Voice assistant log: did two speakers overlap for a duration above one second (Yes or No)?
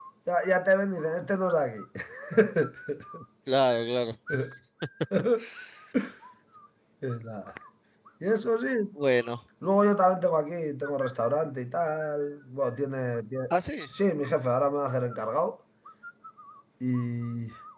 No